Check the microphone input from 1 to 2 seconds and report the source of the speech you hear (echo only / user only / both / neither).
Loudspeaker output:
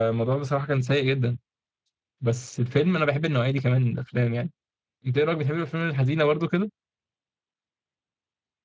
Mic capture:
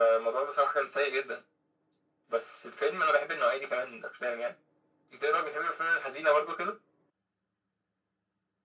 echo only